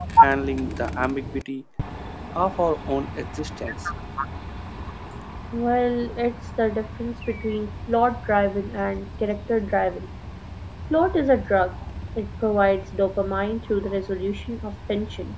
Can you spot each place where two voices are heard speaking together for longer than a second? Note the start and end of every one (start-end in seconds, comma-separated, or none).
none